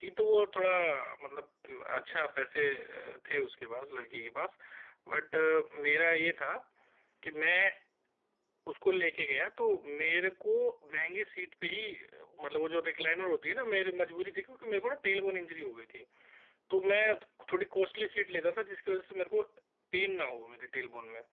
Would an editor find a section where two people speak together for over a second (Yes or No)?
No